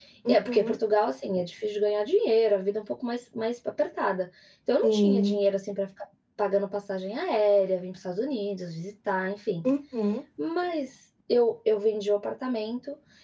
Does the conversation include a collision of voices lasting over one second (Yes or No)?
No